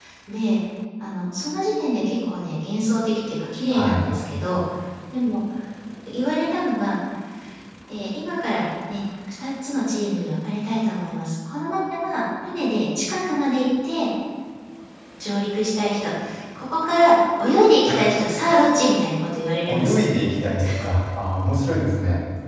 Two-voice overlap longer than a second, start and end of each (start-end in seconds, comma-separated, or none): none